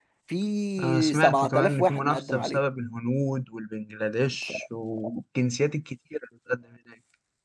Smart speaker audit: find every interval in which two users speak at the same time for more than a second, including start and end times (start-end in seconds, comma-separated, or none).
0.8-2.6